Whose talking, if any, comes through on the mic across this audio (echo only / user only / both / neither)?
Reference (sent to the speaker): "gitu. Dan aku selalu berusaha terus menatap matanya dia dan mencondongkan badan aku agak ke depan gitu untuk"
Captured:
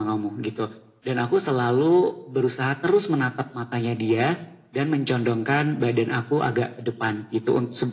echo only